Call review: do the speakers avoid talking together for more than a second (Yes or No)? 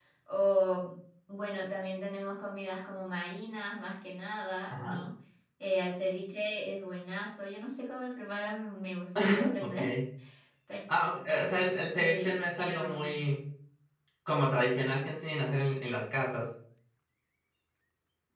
No